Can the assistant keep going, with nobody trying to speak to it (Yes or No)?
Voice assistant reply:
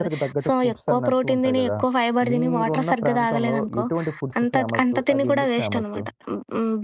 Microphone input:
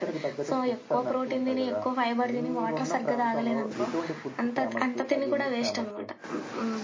Yes